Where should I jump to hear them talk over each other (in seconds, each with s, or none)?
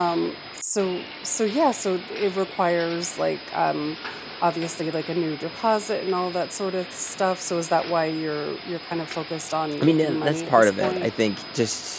9.8 s